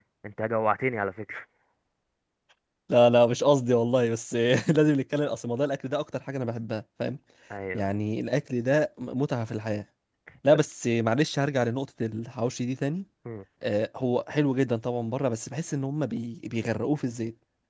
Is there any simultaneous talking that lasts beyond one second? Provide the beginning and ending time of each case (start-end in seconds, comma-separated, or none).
none